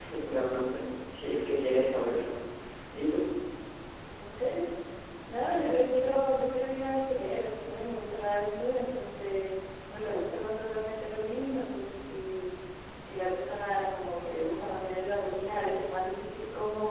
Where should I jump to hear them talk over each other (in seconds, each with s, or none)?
none